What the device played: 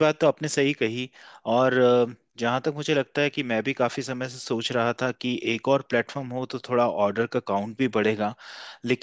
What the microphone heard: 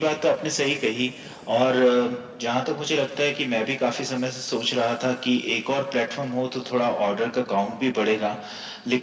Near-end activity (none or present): none